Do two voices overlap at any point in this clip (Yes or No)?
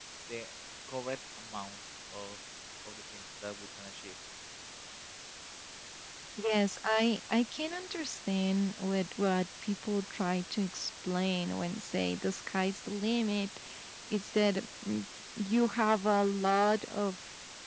No